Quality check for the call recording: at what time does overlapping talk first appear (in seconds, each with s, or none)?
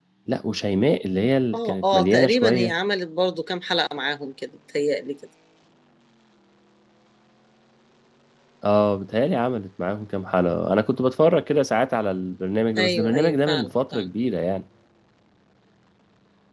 1.5 s